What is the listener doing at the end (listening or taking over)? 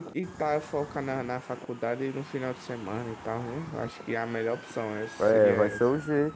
taking over